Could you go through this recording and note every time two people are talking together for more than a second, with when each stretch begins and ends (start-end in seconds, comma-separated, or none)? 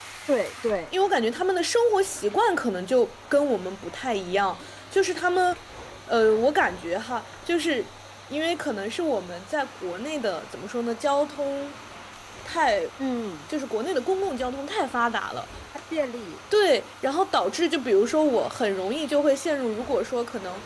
none